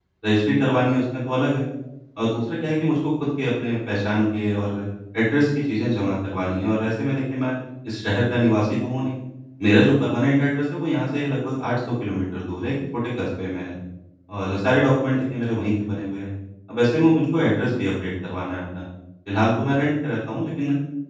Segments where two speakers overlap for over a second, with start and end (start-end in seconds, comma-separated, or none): none